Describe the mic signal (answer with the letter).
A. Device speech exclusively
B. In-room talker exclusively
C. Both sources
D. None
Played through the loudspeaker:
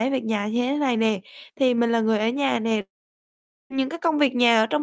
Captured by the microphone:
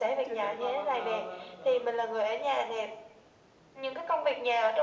C